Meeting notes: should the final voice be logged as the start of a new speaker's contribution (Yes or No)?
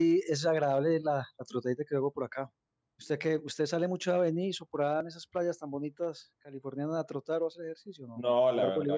Yes